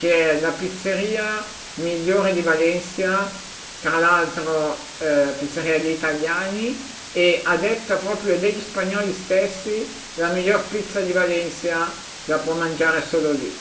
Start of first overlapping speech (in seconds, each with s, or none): none